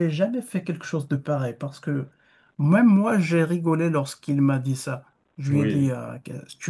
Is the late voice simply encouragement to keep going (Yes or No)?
Yes